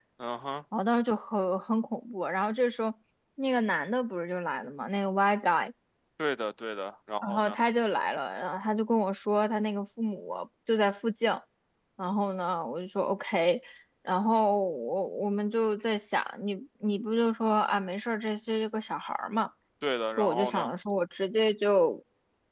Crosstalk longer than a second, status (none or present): none